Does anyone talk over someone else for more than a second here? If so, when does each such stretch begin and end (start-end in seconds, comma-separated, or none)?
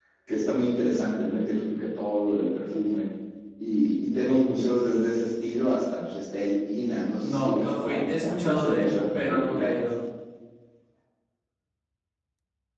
7.2-9.6